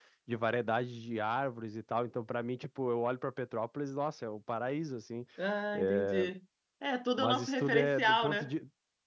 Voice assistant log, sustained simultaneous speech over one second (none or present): present